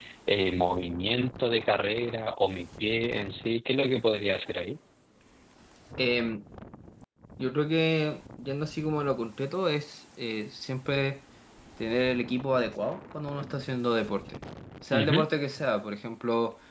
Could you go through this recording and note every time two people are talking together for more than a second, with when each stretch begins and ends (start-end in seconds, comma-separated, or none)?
none